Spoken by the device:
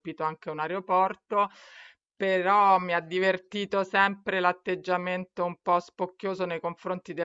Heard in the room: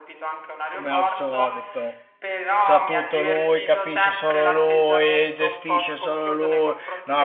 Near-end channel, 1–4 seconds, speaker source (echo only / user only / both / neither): both